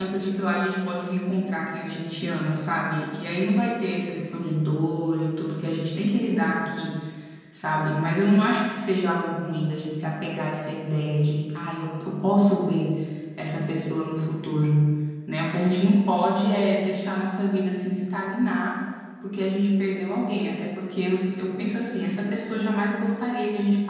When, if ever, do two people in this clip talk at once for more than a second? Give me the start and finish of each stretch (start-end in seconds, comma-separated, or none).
none